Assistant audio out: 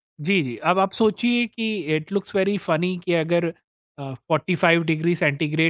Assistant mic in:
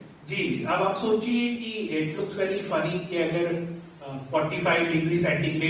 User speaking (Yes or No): No